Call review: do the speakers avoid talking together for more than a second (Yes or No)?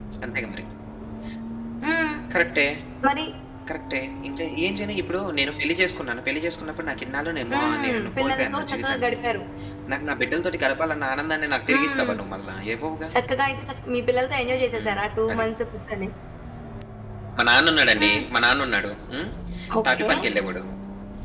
No